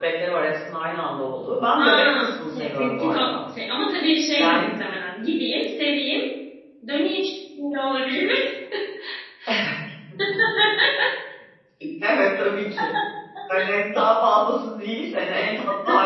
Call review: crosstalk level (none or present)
present